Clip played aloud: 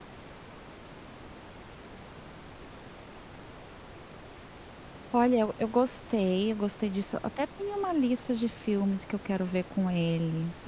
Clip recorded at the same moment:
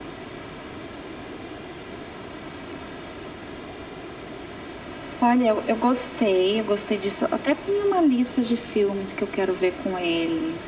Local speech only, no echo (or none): none